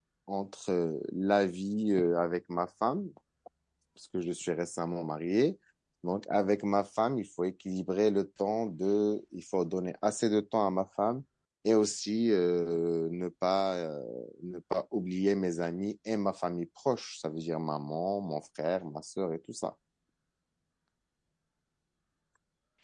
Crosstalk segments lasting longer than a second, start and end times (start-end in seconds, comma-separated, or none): none